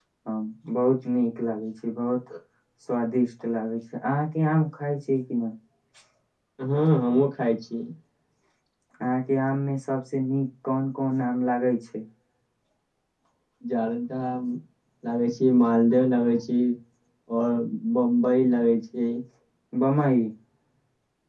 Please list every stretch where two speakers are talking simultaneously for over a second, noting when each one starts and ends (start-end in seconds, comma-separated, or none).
none